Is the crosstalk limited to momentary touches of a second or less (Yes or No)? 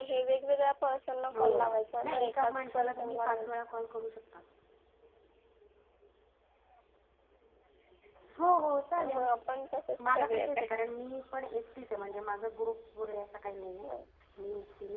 No